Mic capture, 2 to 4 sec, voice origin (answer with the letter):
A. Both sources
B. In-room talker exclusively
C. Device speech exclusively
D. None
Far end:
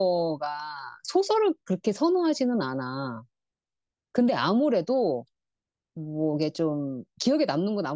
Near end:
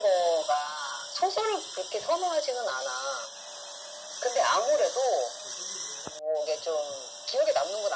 C